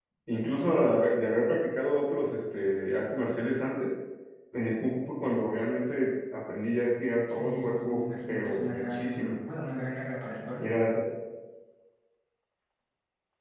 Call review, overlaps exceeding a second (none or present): present